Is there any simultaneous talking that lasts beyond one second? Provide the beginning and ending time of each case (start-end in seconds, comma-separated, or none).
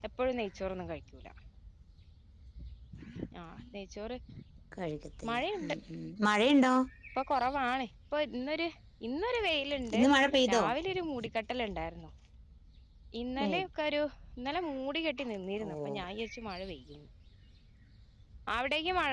none